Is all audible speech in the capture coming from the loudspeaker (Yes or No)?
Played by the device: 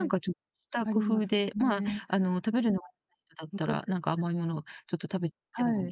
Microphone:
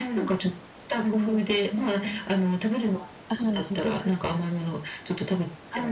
No